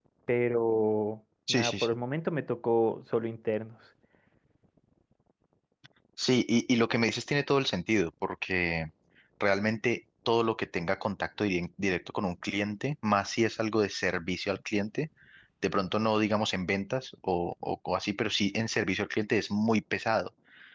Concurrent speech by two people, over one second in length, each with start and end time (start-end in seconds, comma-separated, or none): none